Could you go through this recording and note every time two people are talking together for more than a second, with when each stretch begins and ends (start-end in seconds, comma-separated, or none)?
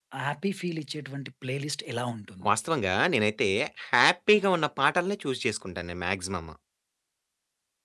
none